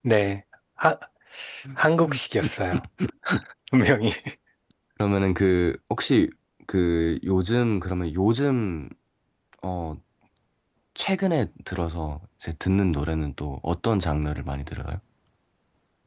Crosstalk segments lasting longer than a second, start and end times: none

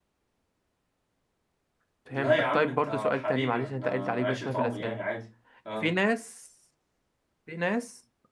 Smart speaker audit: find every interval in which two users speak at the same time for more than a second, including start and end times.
2.1-5.0

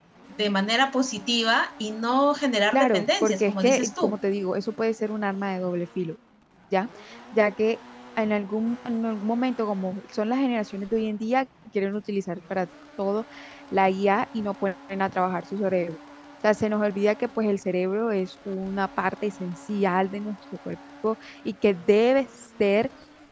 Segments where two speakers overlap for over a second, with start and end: 2.7-4.2

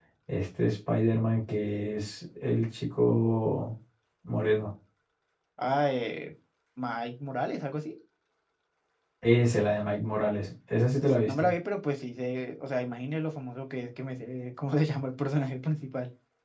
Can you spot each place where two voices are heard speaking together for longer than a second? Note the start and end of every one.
none

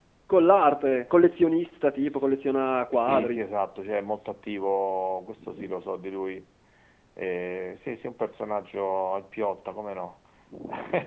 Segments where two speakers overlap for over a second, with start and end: none

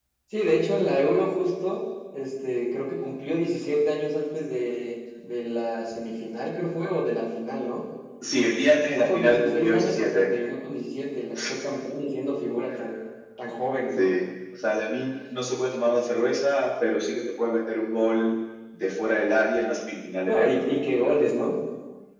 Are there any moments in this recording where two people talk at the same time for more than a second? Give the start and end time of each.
8.7-10.3

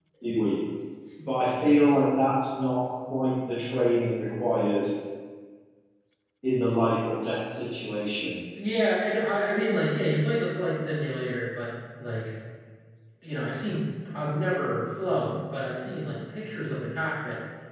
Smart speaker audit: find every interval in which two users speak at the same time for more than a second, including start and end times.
none

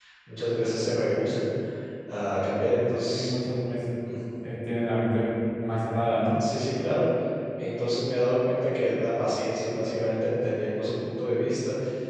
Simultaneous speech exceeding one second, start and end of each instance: none

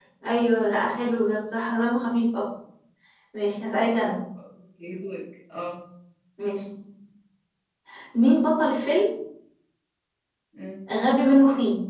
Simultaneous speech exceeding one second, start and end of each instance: none

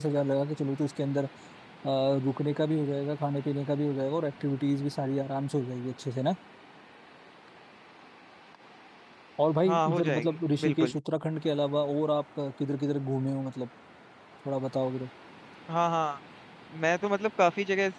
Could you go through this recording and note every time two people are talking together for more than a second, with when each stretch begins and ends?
9.6-10.9

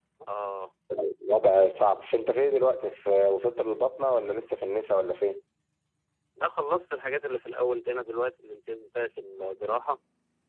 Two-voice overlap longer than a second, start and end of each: none

